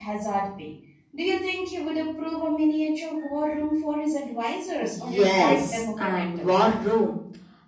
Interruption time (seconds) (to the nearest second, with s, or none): 5 s